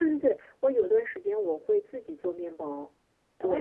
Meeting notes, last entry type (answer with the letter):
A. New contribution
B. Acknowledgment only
A